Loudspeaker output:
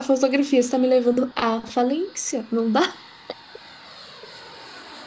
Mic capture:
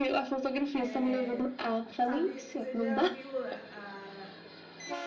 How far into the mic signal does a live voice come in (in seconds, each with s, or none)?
0.7 s